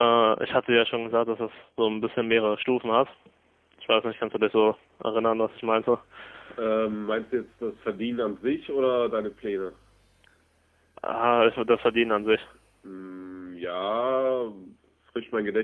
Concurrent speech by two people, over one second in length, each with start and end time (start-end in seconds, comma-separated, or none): none